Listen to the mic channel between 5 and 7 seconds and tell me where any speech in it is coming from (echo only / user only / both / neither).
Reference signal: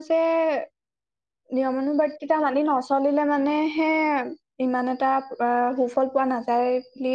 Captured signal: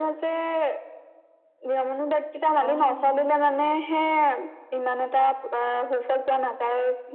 echo only